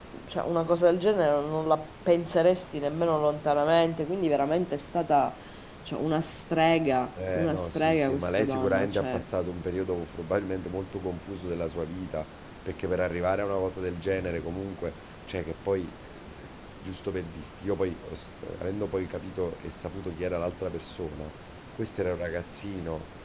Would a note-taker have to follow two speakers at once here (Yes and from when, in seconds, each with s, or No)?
Yes, from 7.2 s